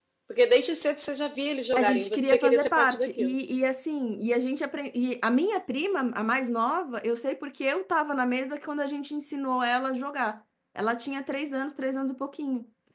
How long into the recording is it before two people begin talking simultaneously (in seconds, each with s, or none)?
1.8 s